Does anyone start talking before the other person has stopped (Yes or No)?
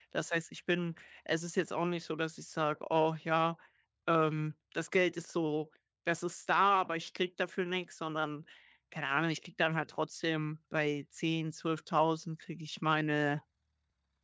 No